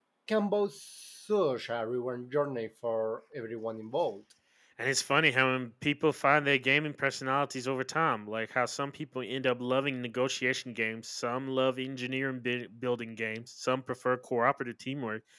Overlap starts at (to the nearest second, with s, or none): none